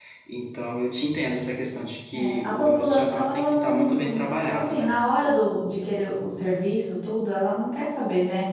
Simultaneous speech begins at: 2 s

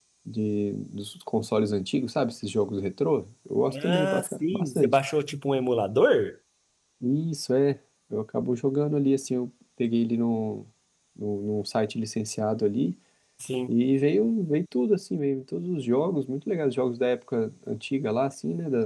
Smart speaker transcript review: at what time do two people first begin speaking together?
4 s

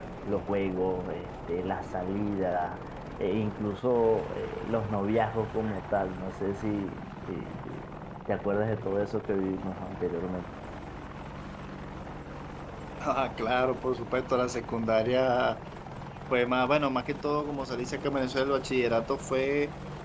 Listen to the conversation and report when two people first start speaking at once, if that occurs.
none

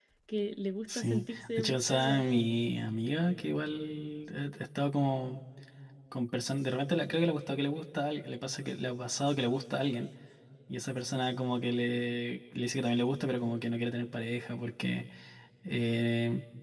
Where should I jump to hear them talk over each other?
1 s

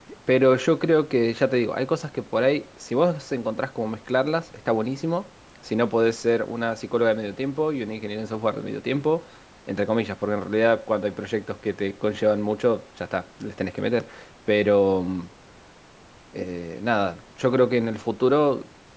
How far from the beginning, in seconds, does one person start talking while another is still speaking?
none

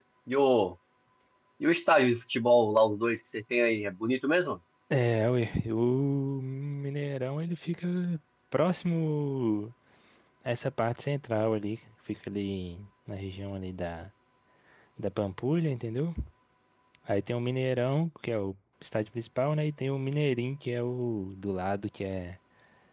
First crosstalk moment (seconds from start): none

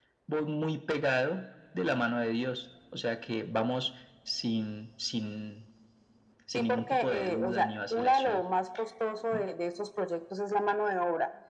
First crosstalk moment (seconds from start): 7 s

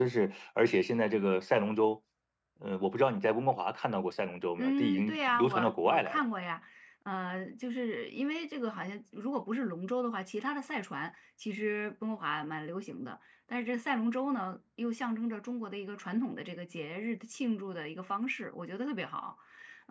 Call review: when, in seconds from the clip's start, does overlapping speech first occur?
5 s

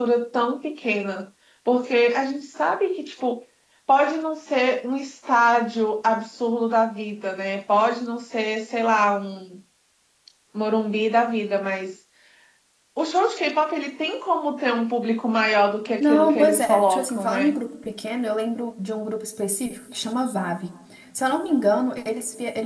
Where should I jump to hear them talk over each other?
16 s

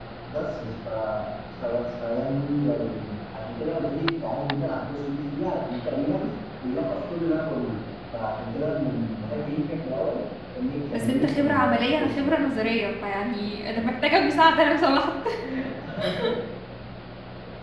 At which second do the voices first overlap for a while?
11 s

